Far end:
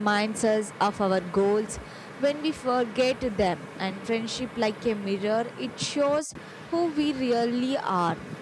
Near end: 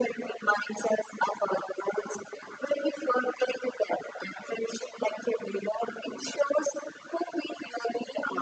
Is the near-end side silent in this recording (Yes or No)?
Yes